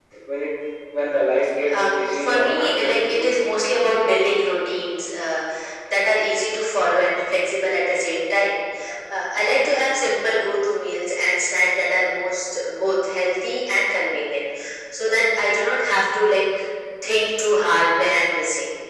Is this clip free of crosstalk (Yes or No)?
No